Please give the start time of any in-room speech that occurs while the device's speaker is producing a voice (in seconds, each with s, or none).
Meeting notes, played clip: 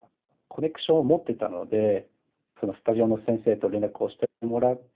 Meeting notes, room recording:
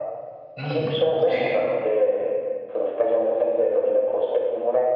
0.6 s